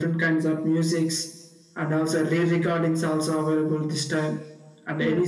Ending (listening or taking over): listening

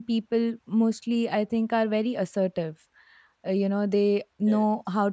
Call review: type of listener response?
listening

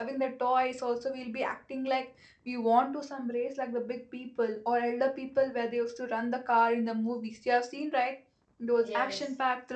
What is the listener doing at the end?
listening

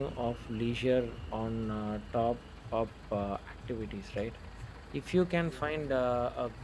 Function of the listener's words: listening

